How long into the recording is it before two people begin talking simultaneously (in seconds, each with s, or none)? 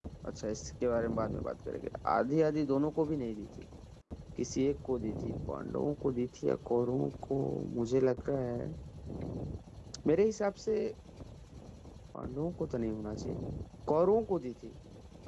none